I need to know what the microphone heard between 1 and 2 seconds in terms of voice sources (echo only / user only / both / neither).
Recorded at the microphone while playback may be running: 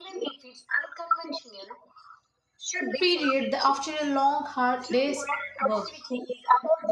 echo only